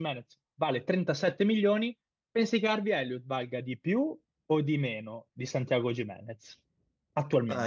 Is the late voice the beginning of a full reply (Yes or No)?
Yes